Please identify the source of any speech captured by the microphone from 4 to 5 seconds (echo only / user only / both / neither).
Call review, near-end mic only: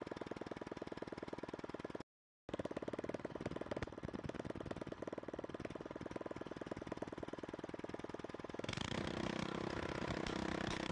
neither